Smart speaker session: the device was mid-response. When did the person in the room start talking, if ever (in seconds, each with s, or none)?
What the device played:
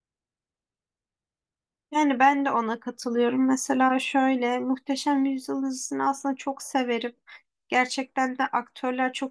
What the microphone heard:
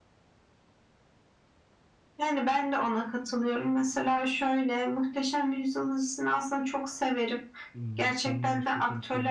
7.7 s